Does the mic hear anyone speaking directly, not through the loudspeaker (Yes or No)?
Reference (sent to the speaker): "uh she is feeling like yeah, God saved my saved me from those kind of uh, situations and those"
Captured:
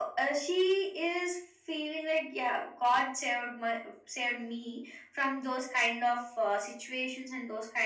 No